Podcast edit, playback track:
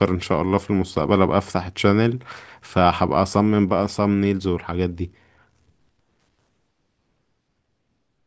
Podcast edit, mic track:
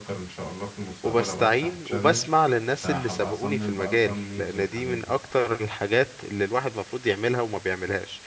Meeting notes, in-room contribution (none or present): present